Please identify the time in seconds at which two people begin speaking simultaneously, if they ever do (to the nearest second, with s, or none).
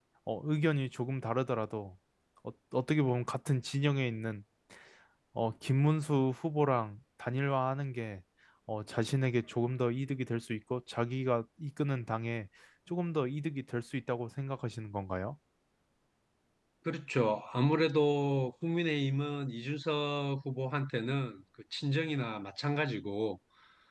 none